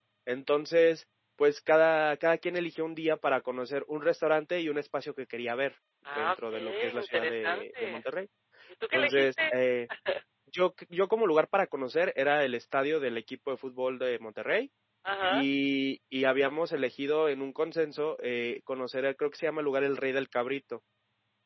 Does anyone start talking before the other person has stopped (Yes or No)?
Yes